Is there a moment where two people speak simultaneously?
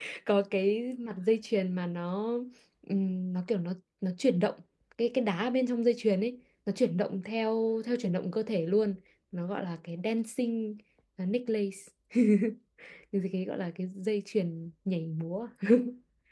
No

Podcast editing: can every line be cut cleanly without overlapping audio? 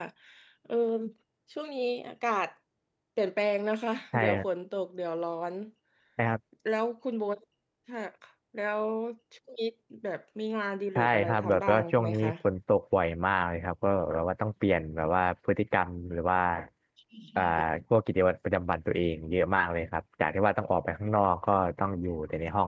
No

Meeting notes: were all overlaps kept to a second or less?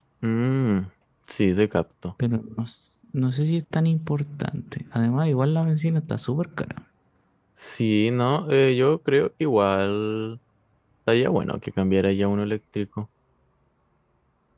Yes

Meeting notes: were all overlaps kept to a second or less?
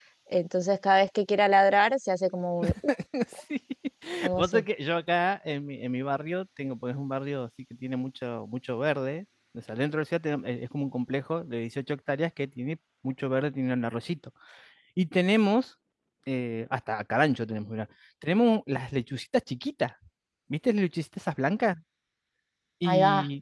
Yes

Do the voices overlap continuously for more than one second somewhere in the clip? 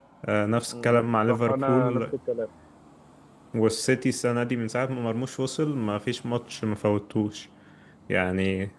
Yes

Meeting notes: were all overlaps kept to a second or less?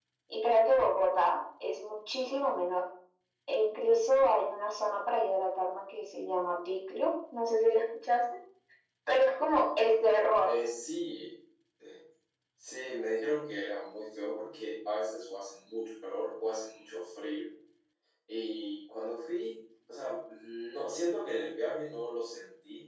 Yes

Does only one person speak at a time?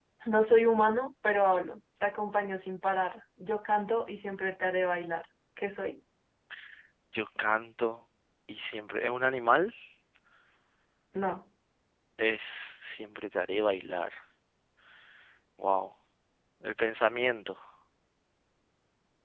Yes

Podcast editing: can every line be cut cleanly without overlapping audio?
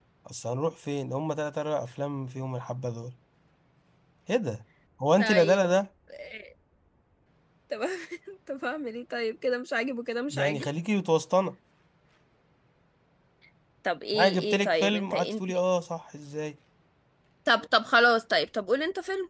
No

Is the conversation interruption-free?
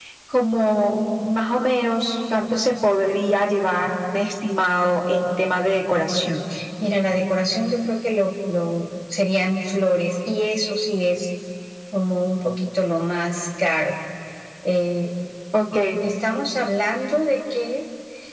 Yes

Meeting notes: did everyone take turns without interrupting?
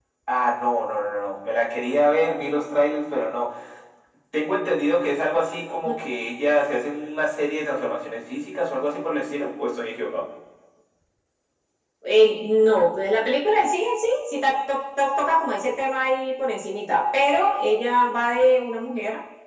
Yes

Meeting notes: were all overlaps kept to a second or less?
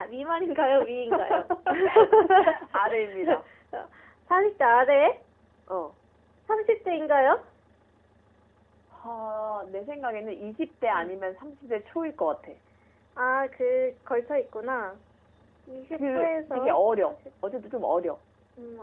No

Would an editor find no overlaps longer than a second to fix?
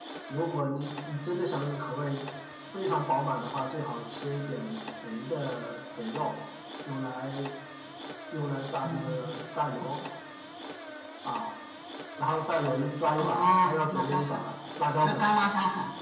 No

